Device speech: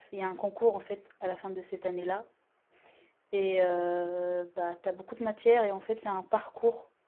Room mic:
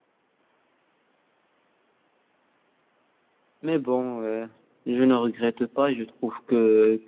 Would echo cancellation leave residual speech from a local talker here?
Yes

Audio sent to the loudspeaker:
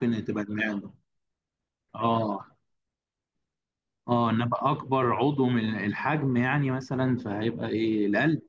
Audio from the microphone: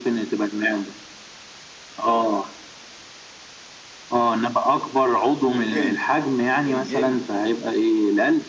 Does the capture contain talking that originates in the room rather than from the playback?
Yes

